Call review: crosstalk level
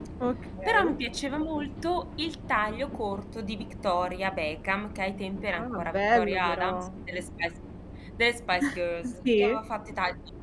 present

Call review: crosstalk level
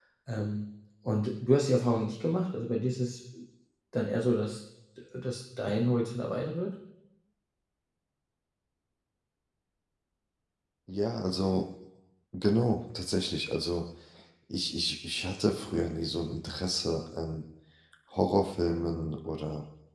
none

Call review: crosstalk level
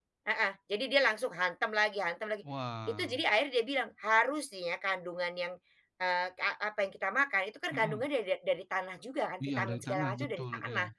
present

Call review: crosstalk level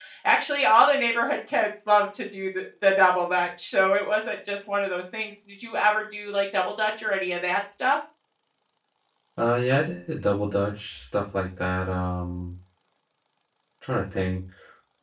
none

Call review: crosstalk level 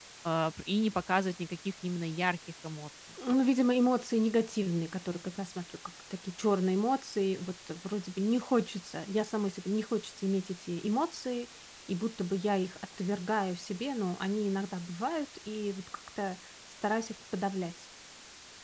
none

